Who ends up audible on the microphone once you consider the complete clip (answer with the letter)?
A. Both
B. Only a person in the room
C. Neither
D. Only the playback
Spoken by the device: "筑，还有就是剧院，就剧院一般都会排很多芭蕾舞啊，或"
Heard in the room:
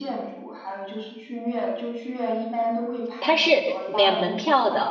A